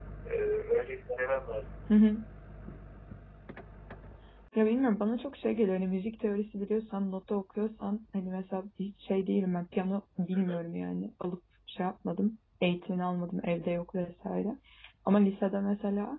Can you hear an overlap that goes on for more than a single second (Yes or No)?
No